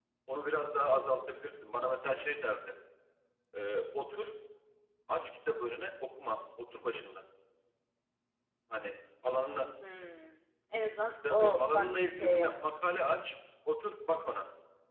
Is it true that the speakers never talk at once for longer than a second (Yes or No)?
No